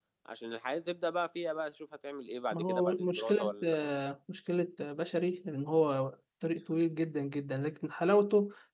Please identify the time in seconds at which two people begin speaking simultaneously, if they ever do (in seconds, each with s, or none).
2.5 s